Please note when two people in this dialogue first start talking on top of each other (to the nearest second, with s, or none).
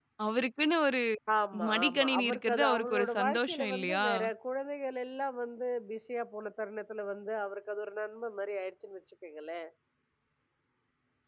2 s